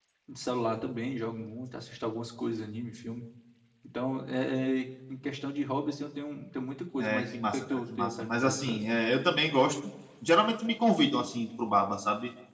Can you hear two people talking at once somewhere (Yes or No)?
Yes